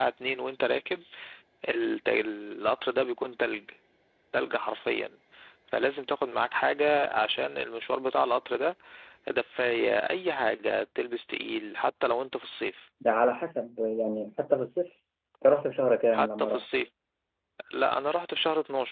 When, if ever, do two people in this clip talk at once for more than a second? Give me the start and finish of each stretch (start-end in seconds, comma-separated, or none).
none